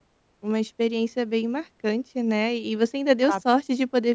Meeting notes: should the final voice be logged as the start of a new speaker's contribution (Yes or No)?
No